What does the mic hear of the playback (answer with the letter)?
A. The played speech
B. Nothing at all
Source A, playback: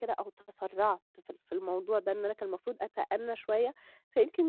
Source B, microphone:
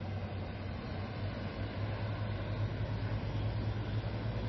B